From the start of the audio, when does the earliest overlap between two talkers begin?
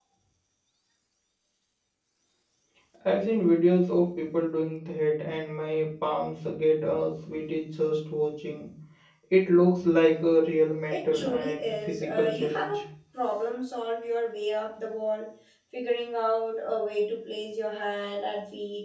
10.9 s

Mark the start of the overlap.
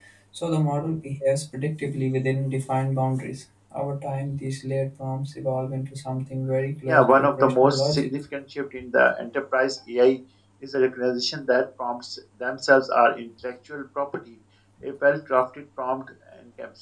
6.9 s

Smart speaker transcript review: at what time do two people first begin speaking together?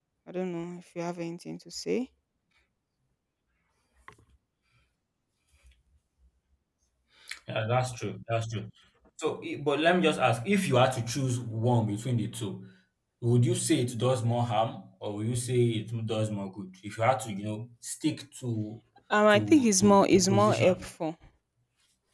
19.3 s

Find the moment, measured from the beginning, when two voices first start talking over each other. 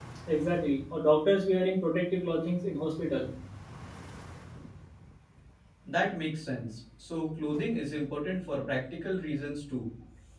none

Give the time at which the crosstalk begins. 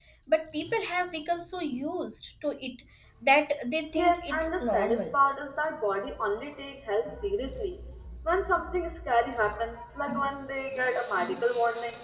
3.9 s

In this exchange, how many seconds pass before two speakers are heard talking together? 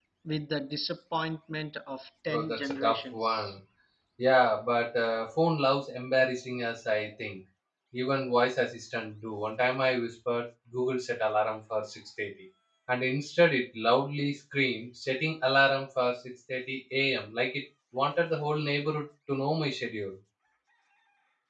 2.3 s

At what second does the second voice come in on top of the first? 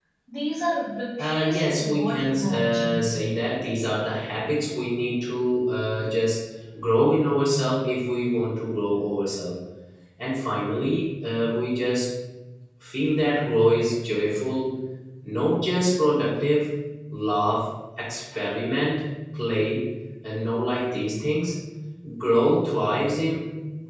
1.2 s

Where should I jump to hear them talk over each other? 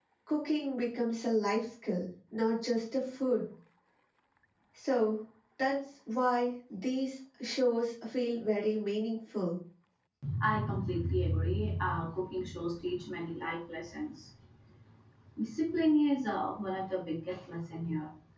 none

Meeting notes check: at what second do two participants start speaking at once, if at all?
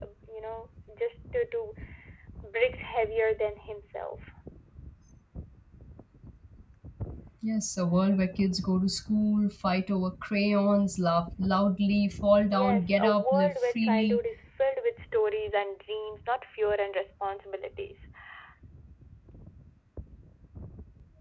12.5 s

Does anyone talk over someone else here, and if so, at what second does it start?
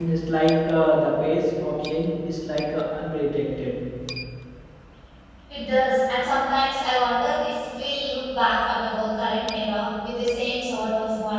none

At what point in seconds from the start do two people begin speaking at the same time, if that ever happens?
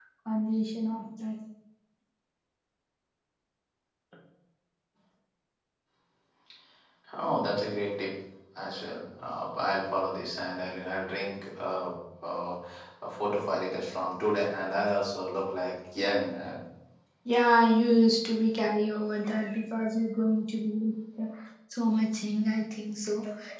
none

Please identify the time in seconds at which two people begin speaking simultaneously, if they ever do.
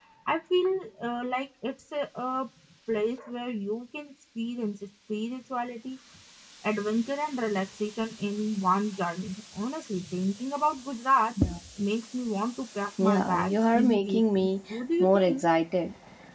13.0 s

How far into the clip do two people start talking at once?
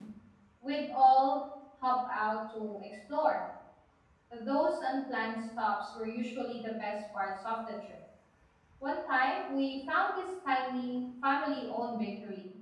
none

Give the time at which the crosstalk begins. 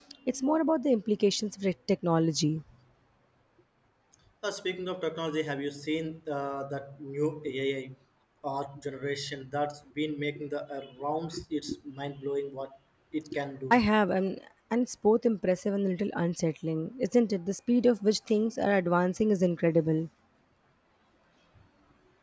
none

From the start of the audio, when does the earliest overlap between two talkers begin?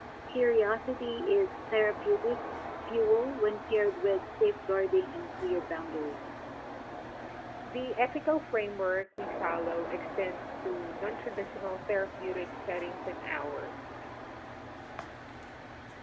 none

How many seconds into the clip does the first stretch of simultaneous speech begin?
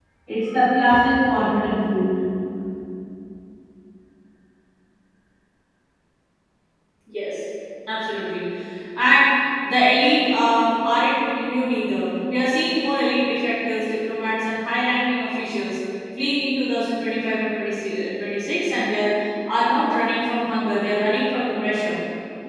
none

